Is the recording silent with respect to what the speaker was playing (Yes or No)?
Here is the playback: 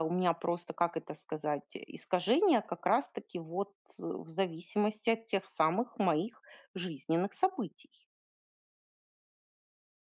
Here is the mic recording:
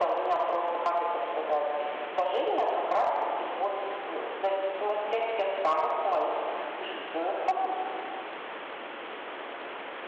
No